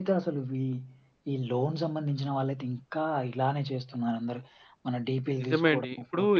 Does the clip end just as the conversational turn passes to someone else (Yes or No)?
Yes